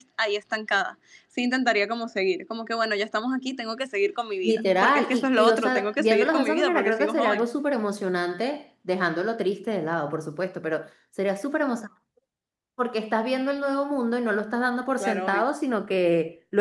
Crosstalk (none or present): present